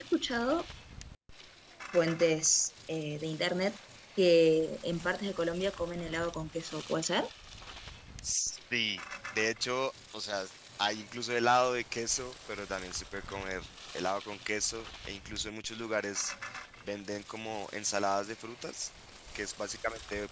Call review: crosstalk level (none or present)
none